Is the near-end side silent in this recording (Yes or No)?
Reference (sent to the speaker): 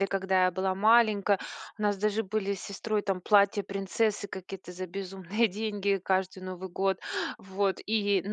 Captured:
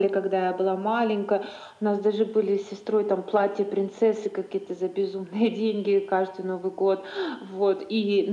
Yes